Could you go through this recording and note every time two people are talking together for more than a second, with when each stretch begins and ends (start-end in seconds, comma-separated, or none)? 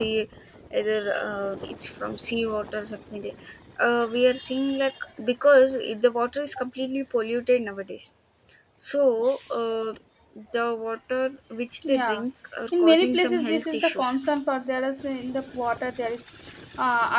12.8-14.2